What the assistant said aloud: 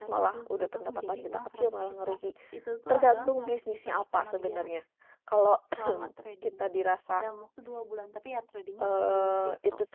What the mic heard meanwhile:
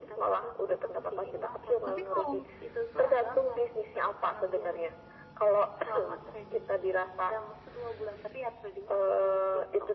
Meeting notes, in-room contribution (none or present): present